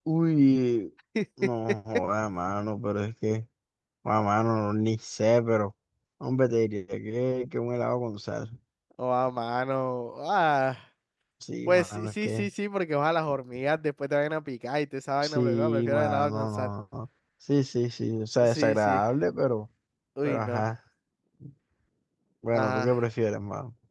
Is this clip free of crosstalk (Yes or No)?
No